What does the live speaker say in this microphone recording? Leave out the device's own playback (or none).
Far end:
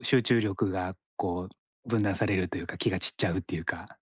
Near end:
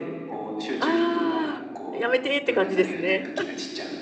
ああ、やめてって感じですね。